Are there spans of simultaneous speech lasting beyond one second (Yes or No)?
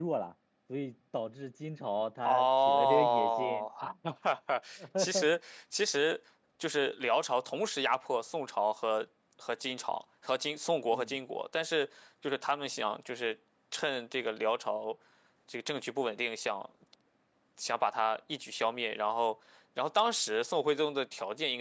Yes